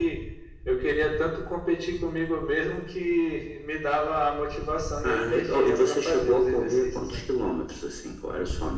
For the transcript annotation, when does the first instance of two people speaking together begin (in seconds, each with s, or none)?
5.0 s